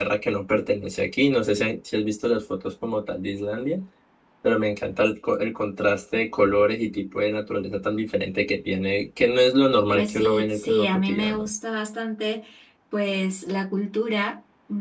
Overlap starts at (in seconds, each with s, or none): 9.9 s